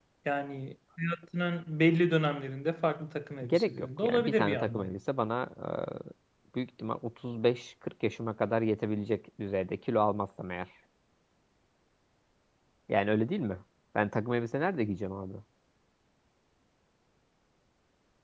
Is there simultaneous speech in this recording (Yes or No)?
Yes